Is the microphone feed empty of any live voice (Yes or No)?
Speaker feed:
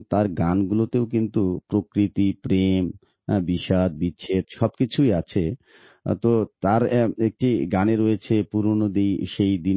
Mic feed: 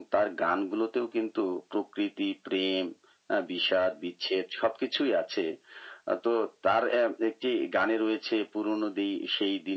Yes